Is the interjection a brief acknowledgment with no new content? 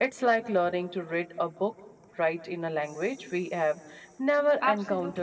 No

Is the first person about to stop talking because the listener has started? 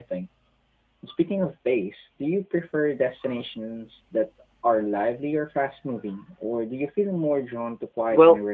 Yes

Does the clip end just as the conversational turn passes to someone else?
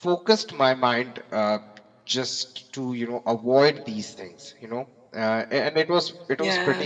No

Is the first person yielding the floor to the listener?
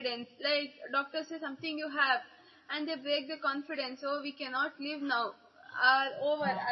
No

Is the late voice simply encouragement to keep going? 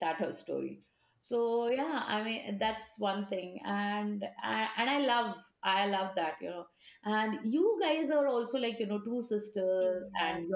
No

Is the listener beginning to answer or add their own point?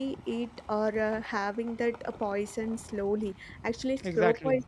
No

